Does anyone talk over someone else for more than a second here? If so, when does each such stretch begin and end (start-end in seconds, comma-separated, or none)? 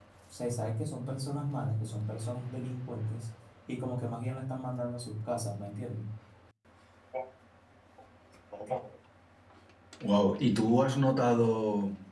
none